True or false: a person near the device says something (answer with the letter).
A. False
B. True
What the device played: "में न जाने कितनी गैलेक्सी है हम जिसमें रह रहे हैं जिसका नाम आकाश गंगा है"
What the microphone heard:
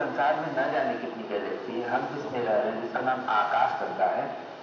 B